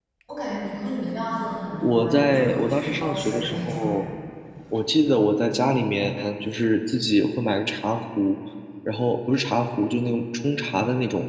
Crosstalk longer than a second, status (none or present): present